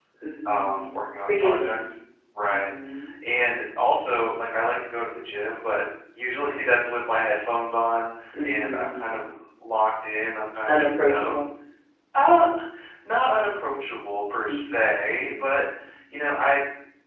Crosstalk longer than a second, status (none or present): present